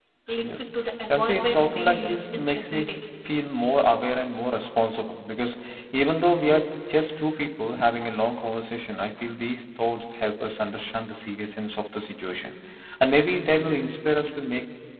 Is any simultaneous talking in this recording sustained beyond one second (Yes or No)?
Yes